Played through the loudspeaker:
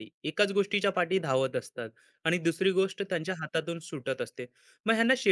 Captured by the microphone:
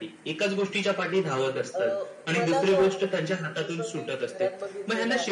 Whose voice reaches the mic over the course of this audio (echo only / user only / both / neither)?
both